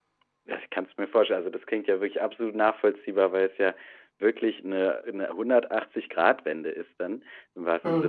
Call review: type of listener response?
listening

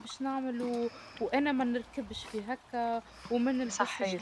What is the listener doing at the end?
listening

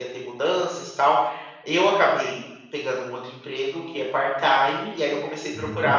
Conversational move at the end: listening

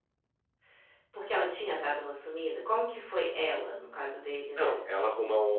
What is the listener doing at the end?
taking over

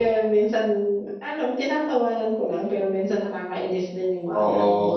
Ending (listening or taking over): taking over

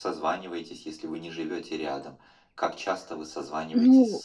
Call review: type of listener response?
taking over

